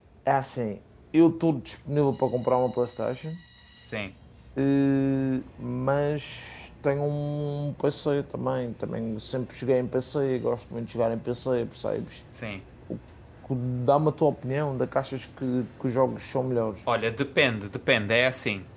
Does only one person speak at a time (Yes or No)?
Yes